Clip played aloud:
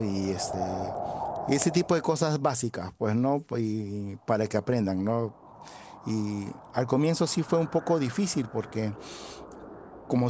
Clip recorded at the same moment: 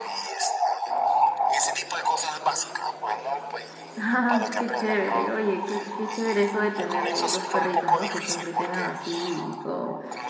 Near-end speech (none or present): present